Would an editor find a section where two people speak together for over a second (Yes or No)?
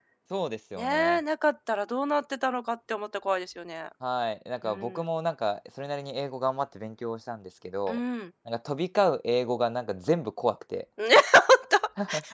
No